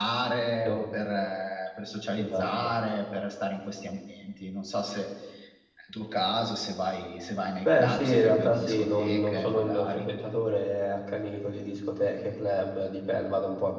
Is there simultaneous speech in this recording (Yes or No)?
Yes